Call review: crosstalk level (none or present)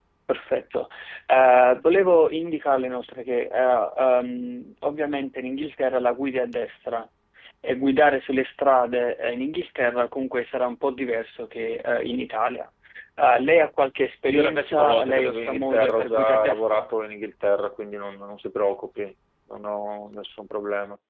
present